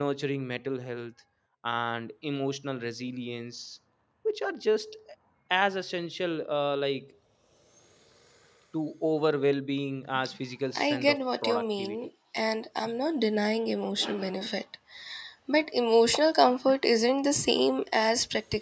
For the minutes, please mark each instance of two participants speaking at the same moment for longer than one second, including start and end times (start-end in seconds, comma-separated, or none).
10.8-12.1